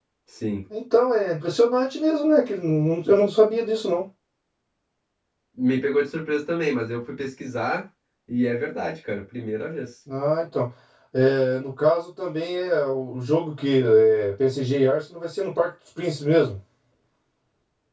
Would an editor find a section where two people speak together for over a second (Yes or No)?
No